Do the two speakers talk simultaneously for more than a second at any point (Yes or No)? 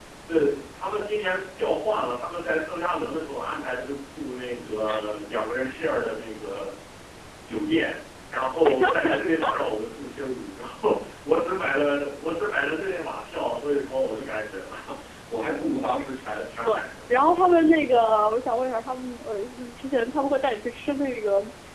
No